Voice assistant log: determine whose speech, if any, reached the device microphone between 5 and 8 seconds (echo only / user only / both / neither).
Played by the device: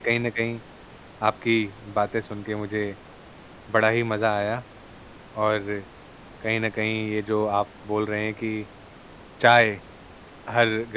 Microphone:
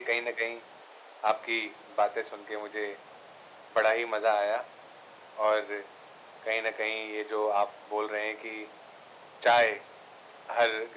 echo only